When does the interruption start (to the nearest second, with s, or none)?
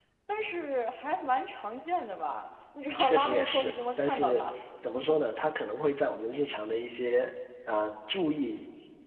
3 s